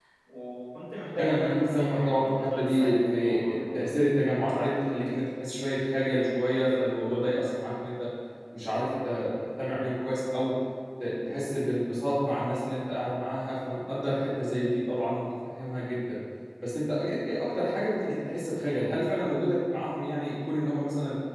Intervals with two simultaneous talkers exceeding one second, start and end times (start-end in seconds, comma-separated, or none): 1.2-3.6